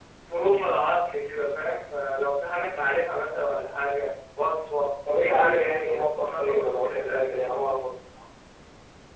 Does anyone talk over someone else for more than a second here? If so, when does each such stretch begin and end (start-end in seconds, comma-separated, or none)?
5.2-7.3